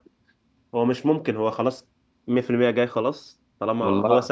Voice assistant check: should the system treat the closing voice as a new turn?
No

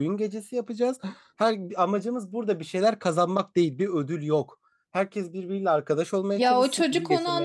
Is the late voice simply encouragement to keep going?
No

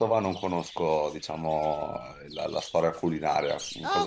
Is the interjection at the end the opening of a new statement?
Yes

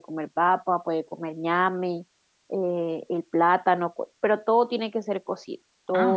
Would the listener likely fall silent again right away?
No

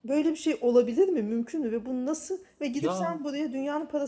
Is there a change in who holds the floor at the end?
No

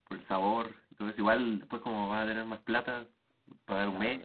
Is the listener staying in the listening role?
No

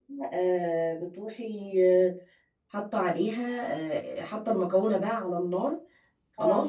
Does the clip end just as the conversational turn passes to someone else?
No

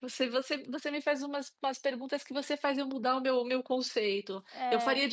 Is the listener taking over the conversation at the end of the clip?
No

